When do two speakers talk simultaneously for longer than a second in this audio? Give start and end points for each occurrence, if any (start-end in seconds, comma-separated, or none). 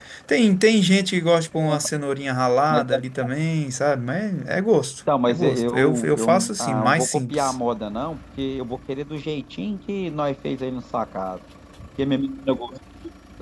5.2-7.6